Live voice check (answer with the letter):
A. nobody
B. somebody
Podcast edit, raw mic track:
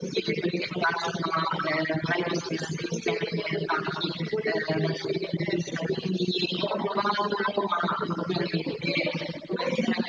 A